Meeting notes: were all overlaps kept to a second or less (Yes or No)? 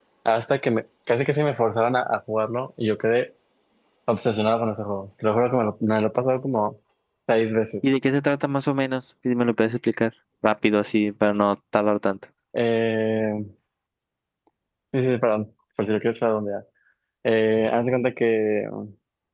Yes